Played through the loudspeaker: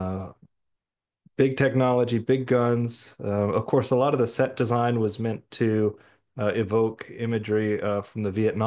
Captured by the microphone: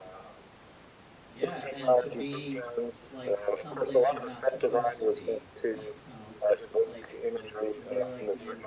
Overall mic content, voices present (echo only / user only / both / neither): both